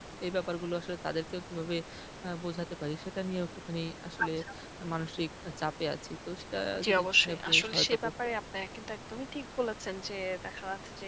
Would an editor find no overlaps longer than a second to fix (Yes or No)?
No